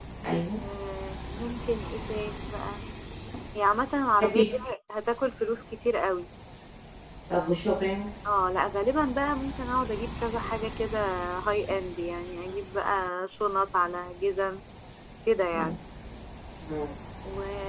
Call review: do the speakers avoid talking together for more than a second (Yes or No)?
Yes